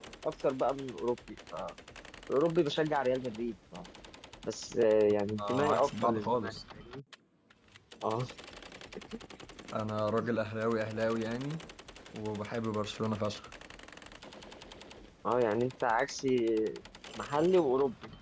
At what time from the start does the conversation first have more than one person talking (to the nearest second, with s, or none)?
5 s